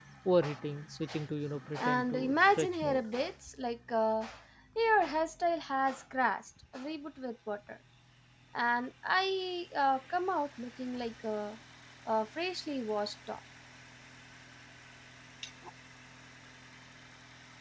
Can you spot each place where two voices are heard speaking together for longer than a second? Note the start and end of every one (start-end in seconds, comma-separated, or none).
1.8-3.1